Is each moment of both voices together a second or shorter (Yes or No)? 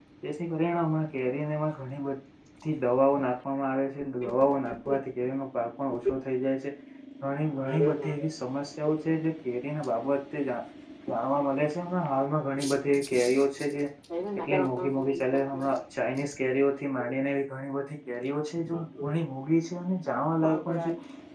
No